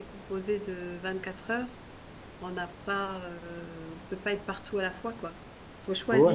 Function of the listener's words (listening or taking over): taking over